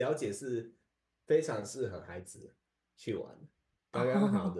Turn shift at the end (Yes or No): No